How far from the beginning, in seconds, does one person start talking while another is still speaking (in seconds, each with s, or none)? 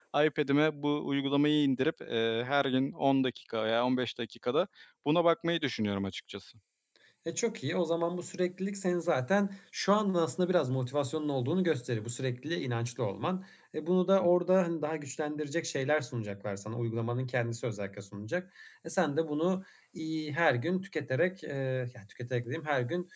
none